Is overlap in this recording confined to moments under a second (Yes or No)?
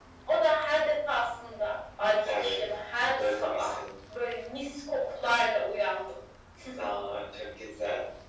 Yes